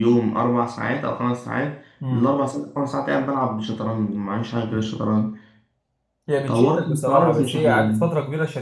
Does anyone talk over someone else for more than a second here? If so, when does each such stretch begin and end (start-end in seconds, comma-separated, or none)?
6.5-8.0